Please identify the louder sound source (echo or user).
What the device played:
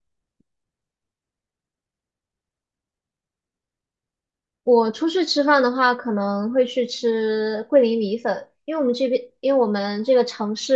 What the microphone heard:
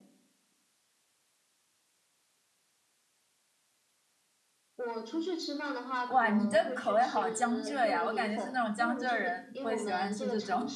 user